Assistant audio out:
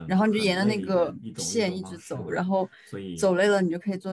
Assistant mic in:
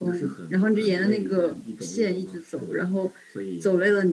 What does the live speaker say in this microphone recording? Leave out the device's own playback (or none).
none